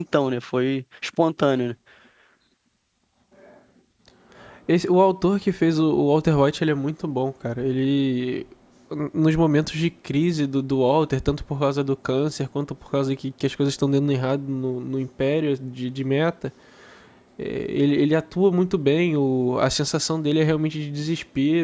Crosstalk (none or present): none